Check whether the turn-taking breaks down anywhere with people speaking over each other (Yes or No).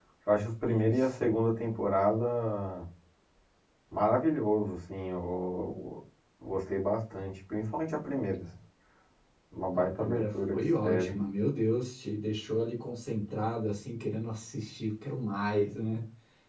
Yes